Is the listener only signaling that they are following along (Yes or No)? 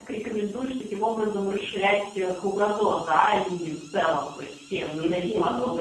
No